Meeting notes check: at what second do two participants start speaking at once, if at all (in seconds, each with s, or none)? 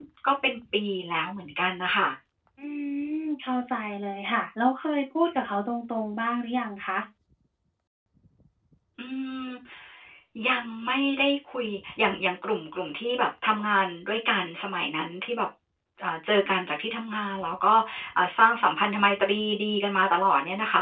none